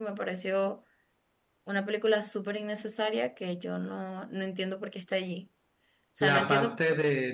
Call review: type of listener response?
taking over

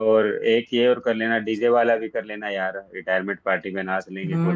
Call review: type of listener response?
taking over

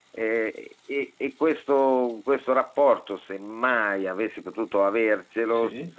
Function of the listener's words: listening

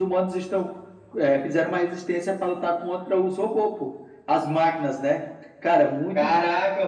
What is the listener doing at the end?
taking over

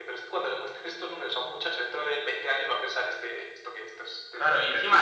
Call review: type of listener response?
taking over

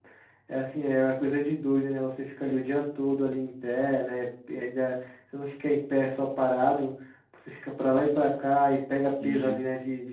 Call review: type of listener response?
listening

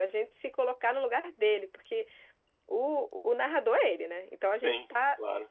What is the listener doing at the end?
listening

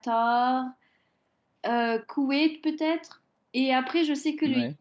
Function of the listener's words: listening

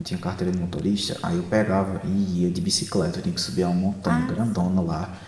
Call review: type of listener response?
listening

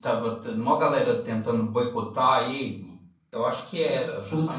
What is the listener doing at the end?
taking over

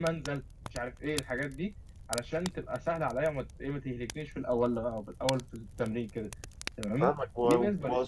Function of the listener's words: taking over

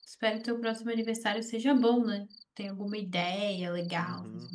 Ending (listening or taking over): taking over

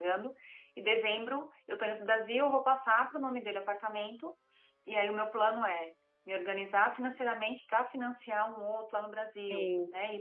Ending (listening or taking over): listening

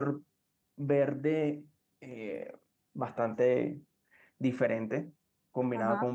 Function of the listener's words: listening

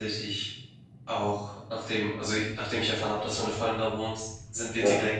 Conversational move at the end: listening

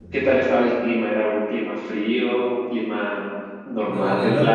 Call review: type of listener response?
taking over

